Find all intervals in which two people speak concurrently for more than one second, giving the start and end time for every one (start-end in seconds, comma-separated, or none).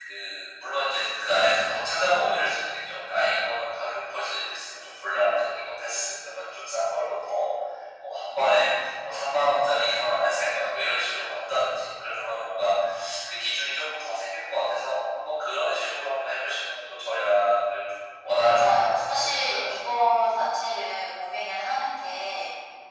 18.4-19.7